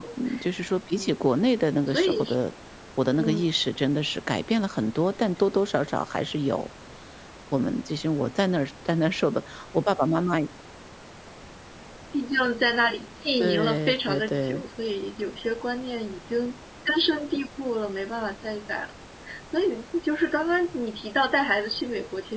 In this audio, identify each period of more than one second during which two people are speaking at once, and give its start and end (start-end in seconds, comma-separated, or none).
13.4-14.6